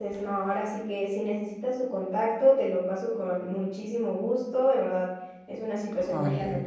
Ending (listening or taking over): listening